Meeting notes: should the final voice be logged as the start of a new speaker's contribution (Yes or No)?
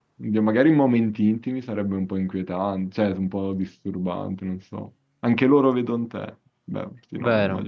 Yes